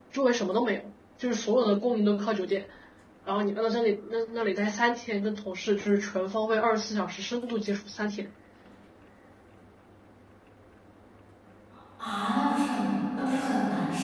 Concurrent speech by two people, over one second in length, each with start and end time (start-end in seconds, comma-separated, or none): none